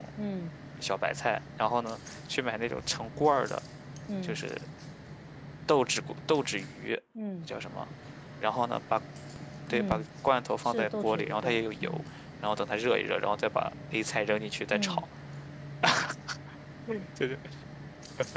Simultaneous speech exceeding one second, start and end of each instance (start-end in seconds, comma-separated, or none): 10.6-12.0